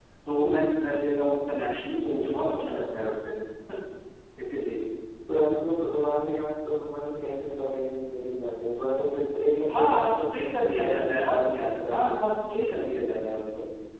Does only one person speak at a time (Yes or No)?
No